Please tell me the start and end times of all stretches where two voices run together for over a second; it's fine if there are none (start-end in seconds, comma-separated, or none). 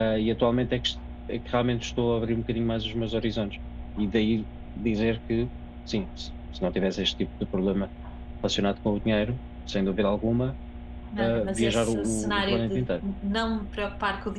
11.2-12.9